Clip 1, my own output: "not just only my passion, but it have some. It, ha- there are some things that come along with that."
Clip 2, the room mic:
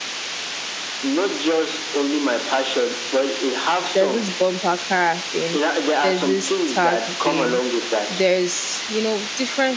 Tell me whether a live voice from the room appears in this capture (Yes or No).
Yes